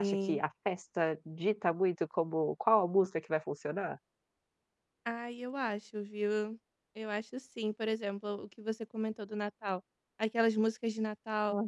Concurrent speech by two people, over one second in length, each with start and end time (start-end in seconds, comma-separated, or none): none